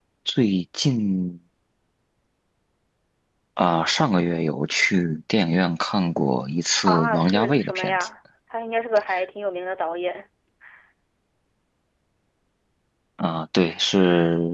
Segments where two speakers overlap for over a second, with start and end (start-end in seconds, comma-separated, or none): 6.8-8.1